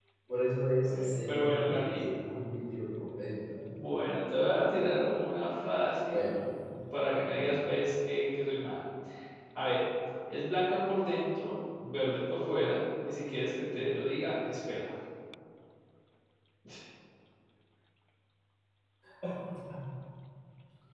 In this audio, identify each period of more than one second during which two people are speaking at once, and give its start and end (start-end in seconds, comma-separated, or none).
0.7-2.0